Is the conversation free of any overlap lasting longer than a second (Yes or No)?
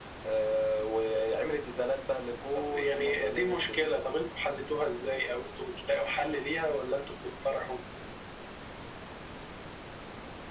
No